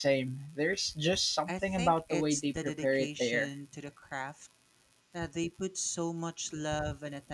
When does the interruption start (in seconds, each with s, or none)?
1.5 s